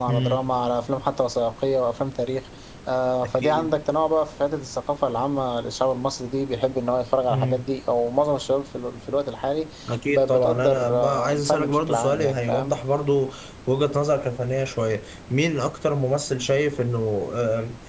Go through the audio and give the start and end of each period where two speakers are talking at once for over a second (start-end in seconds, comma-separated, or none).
10.1-12.7